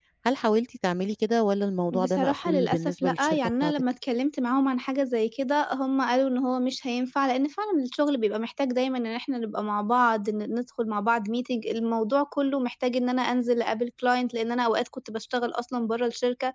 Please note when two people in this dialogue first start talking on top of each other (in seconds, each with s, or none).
1.9 s